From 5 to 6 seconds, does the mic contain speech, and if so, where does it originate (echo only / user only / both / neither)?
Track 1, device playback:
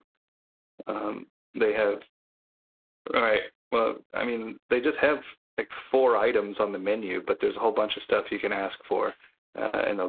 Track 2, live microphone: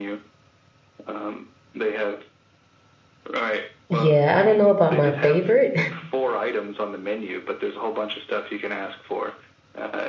both